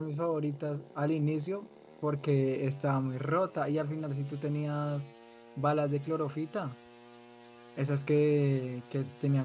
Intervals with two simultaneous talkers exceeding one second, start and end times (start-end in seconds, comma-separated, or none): none